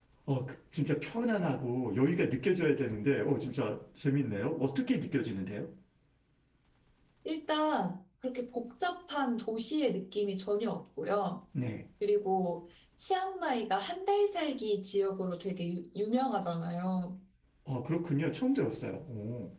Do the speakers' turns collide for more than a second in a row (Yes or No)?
No